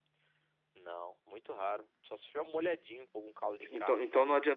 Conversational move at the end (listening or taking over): taking over